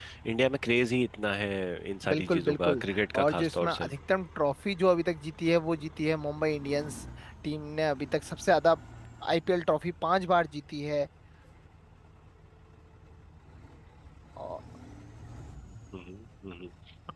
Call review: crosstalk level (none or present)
present